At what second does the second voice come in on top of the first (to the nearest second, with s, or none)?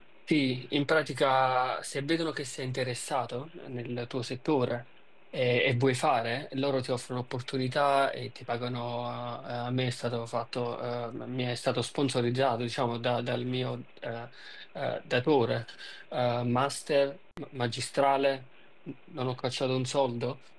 none